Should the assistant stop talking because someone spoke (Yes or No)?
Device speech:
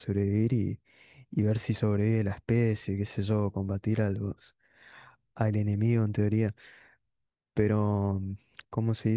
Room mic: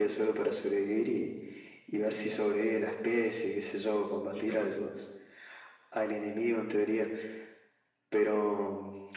Yes